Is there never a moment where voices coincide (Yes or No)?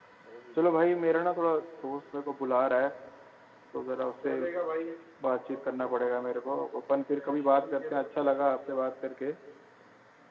No